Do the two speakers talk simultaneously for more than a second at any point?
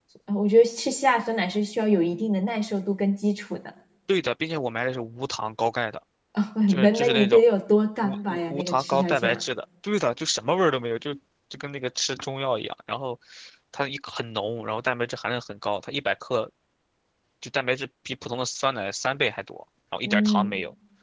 Yes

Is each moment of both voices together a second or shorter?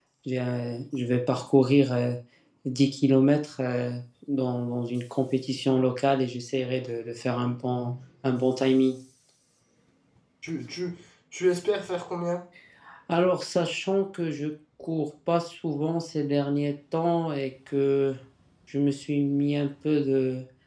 Yes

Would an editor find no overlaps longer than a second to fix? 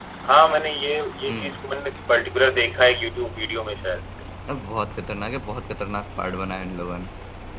Yes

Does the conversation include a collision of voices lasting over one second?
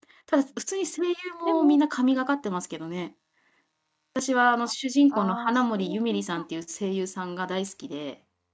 Yes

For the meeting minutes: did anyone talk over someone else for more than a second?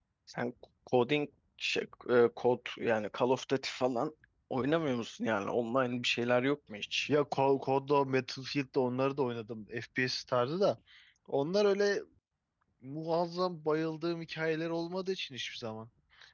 No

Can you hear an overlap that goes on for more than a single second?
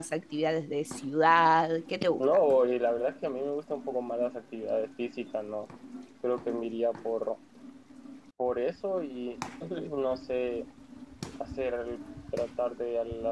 No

